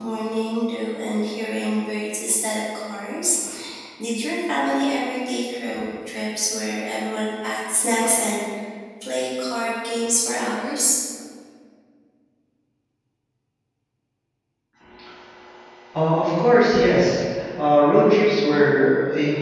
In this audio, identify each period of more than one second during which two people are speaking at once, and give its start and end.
none

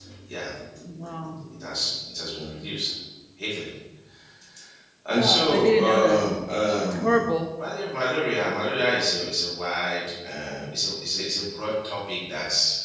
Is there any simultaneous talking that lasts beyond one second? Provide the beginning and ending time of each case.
5.1-6.3

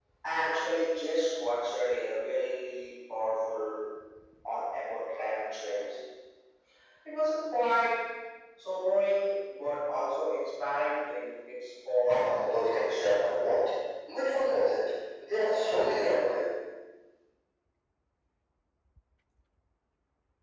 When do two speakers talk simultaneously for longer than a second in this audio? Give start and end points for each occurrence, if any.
12.1-13.3

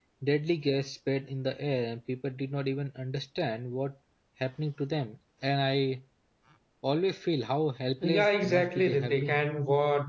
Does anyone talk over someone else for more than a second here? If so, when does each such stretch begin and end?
8.0-9.4

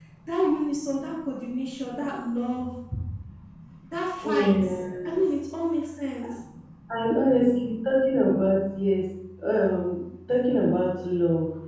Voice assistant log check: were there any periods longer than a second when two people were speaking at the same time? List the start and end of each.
none

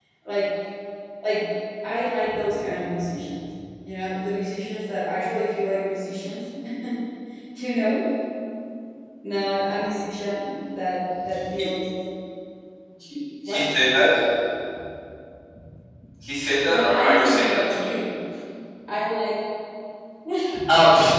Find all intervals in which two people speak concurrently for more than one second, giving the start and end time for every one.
16.7-17.9

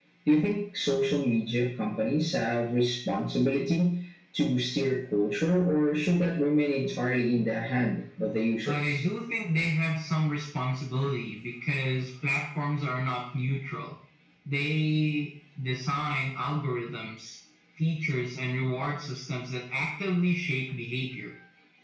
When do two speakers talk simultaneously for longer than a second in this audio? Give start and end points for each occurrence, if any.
none

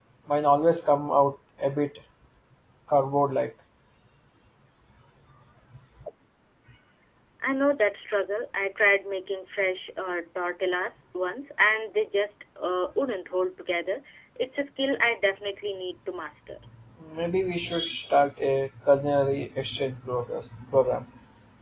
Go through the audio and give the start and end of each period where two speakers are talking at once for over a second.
none

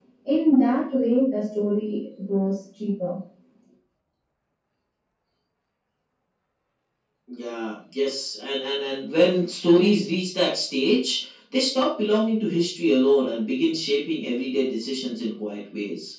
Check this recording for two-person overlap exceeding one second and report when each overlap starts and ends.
none

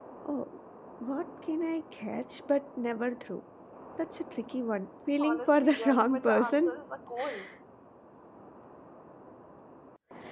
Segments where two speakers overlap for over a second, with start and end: 5.2-6.8

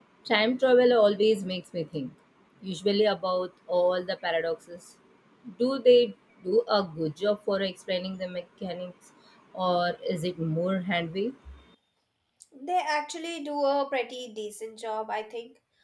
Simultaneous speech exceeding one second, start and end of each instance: none

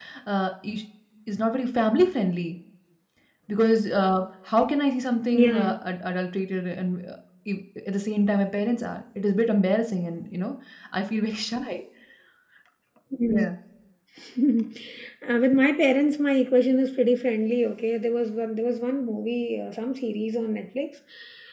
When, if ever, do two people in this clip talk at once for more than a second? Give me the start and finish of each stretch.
none

